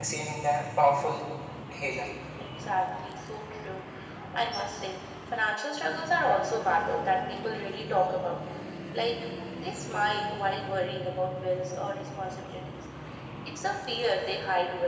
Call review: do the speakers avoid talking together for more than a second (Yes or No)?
Yes